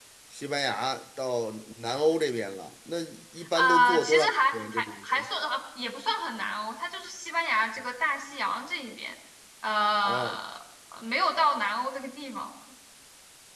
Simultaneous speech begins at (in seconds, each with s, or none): 3.6 s